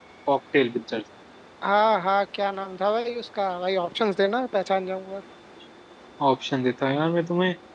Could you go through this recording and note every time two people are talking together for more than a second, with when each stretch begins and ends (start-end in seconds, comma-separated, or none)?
none